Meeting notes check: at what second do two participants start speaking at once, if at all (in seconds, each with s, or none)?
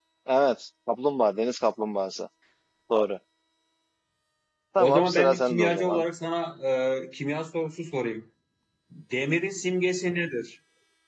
4.8 s